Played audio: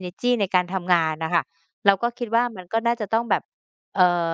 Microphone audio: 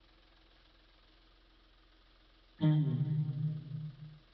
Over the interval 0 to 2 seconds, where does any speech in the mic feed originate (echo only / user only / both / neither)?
neither